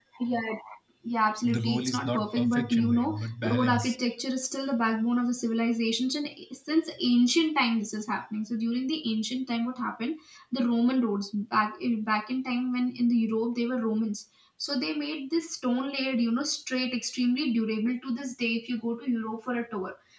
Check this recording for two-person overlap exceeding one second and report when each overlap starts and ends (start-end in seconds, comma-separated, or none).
1.4-4.0